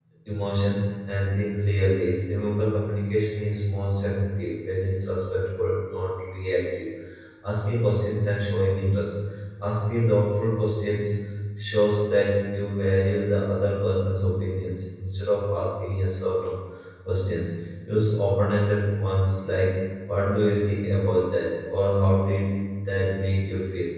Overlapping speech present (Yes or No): No